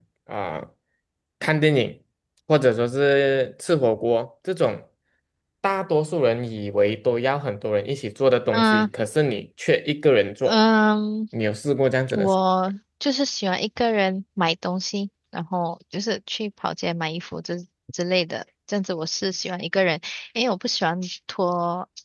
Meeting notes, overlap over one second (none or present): none